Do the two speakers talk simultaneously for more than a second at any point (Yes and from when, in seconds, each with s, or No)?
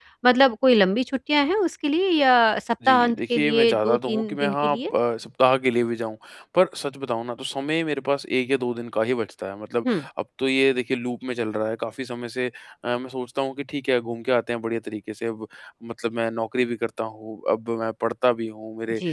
Yes, from 2.8 s